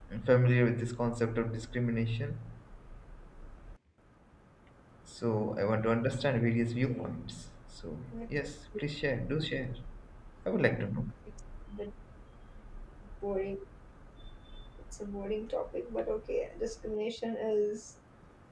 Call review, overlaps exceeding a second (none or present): none